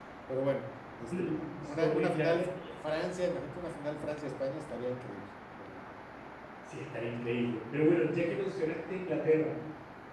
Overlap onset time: 1.1 s

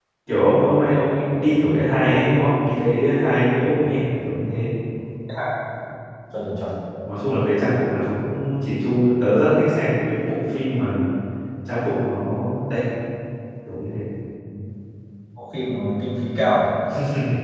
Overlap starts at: none

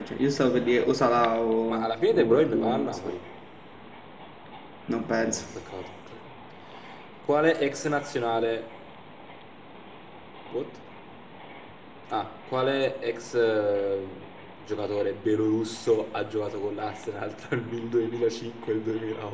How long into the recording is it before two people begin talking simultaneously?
1.7 s

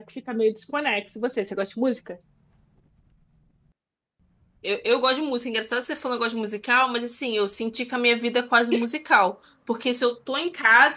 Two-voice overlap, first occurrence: none

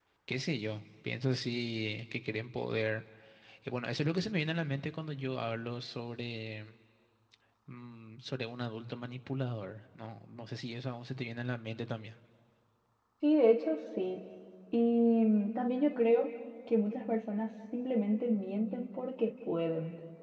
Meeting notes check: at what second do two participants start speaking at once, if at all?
none

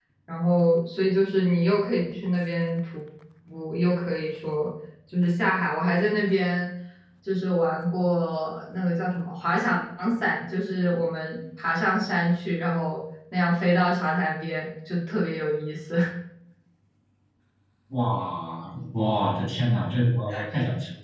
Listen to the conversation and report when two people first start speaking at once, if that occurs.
none

